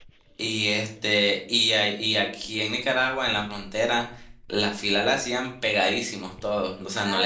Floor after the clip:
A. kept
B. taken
A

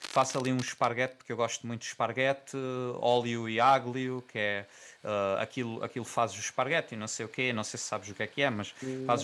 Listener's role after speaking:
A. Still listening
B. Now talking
A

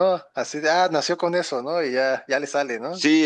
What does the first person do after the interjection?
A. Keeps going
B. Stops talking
B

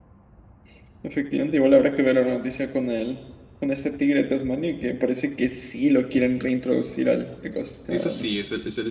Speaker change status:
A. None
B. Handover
B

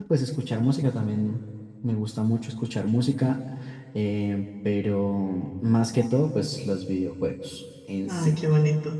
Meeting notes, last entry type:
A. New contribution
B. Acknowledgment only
A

